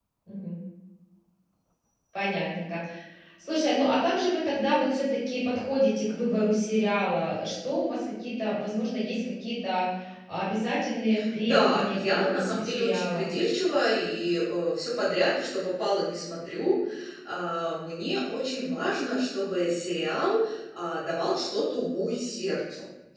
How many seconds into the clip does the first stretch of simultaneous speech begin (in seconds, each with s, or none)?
11.4 s